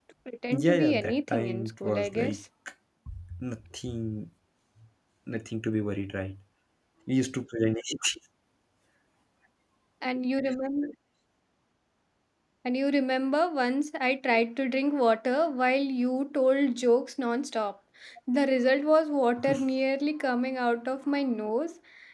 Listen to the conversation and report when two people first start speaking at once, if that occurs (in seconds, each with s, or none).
0.5 s